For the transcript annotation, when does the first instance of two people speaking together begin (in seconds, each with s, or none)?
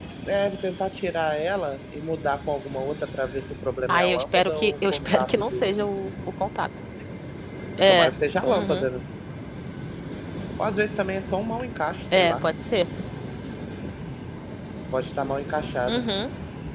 3.9 s